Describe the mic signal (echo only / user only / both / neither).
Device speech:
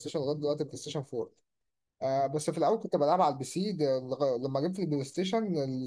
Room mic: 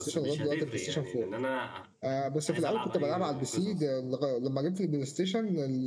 both